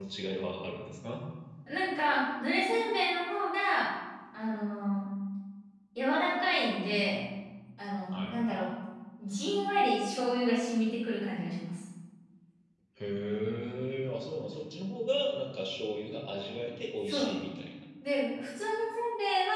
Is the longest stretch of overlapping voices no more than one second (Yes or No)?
Yes